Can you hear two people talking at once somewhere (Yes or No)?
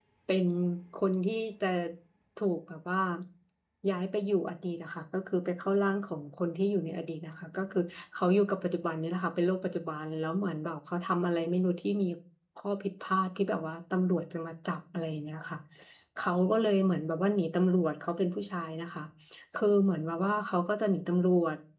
No